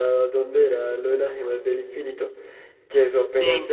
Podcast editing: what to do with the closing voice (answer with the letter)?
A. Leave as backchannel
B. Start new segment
A